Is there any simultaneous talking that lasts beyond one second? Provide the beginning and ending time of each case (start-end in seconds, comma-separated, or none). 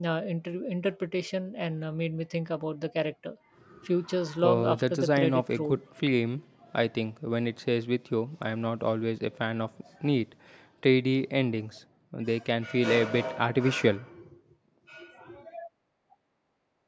4.4-5.8